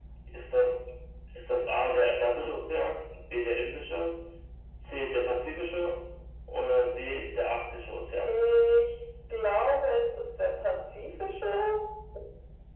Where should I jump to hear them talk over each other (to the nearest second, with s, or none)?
none